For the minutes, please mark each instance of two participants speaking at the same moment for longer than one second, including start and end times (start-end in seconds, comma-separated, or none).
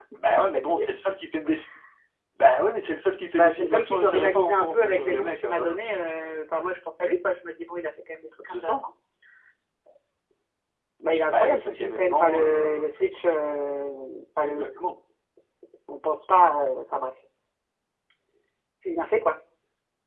3.3-5.6, 11.3-12.9